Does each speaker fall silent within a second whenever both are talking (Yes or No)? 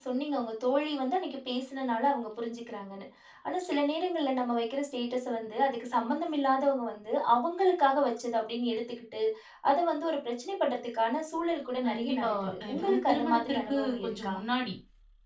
No